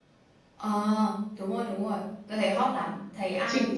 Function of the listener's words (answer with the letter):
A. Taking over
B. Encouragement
A